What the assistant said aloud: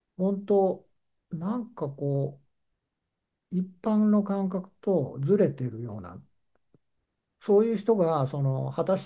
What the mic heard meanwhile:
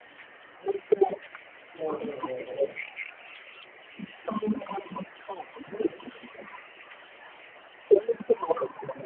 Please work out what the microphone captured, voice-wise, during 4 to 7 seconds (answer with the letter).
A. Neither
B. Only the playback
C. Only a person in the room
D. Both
B